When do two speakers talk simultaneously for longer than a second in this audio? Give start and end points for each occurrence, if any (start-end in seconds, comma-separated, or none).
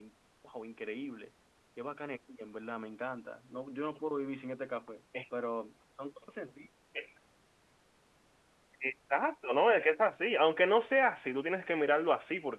none